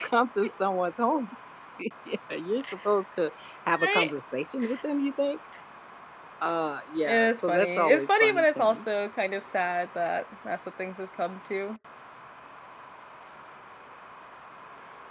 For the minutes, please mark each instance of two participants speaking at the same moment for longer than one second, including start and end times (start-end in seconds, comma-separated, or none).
7.1-8.8